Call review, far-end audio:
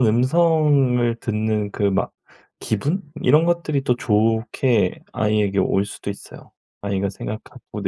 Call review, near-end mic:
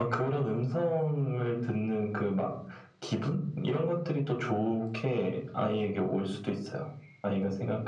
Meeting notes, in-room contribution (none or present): none